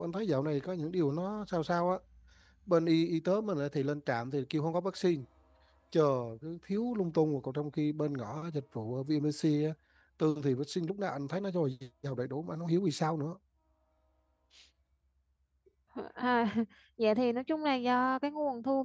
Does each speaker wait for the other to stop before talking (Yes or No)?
Yes